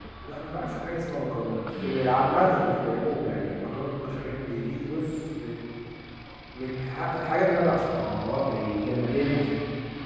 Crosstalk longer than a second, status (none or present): none